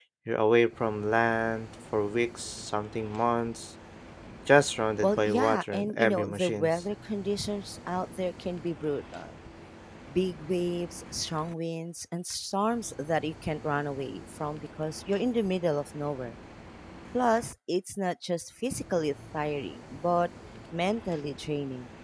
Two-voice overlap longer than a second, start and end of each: 5.0-6.7

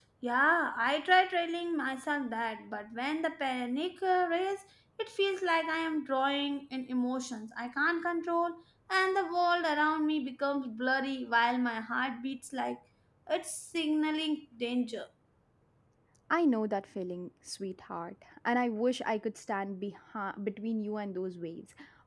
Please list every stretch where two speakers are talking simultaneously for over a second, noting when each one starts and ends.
none

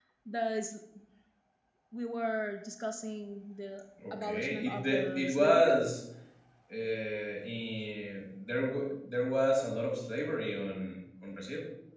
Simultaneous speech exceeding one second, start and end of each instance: 4.1-5.8

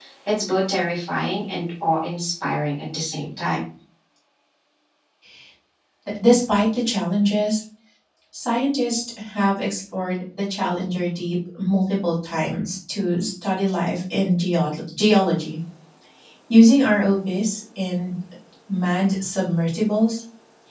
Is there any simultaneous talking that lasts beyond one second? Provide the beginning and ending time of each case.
none

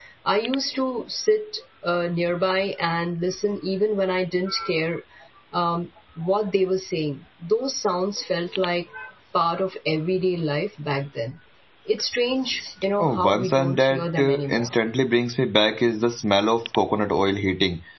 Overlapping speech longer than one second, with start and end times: 13.0-14.7

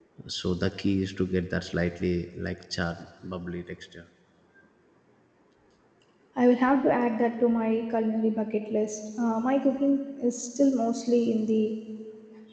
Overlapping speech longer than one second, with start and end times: none

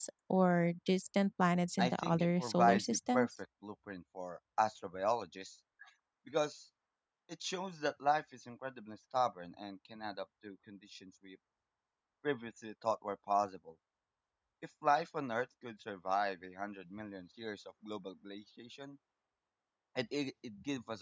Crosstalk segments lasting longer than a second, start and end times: 1.8-3.3

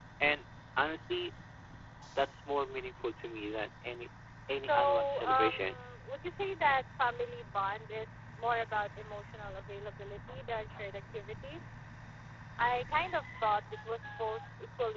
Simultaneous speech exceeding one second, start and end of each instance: 4.5-5.8

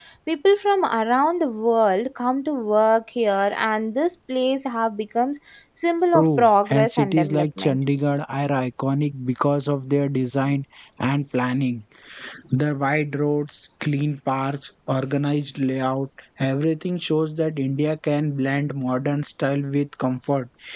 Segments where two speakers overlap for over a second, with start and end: 6.1-7.8

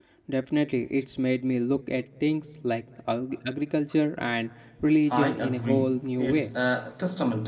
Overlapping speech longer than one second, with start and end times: 5.1-6.5

